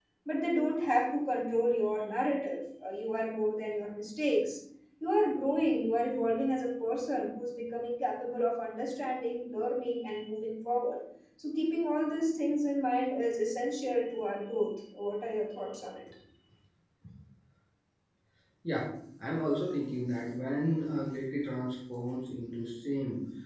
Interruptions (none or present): none